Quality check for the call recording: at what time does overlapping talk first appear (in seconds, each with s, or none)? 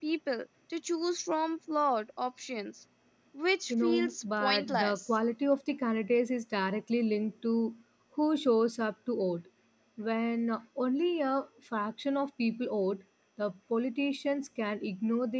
3.7 s